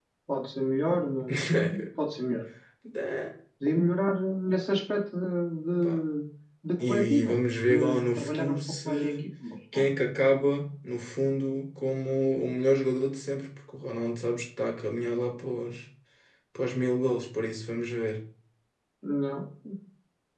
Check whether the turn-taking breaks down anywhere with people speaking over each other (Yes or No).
Yes